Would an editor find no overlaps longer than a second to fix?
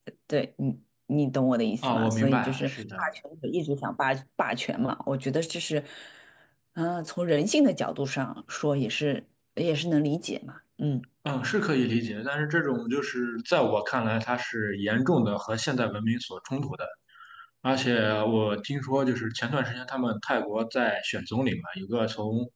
No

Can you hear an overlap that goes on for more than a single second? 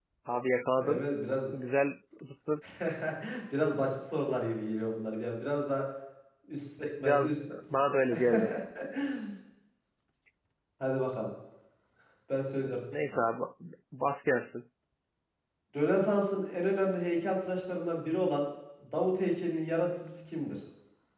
No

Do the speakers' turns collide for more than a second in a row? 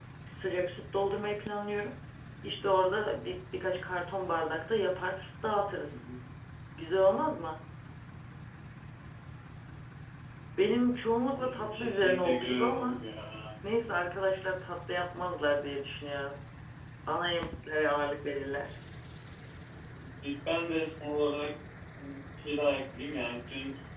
Yes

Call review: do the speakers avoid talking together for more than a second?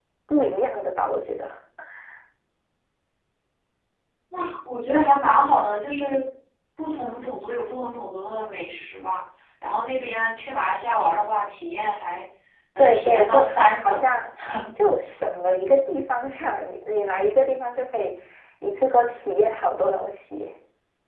No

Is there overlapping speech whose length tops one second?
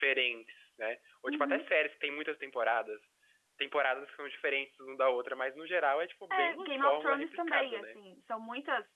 Yes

